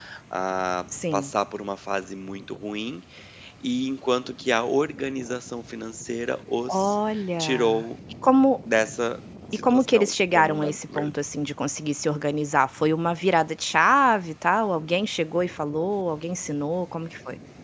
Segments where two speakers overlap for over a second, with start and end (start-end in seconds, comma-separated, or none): 9.5-11.1